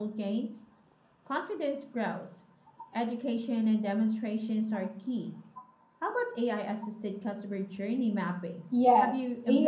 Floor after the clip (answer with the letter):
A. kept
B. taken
B